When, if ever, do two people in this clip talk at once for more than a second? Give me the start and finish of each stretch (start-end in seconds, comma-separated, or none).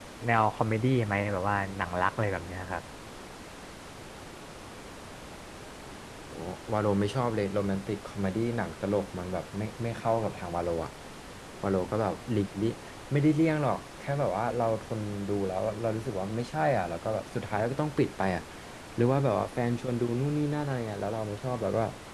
none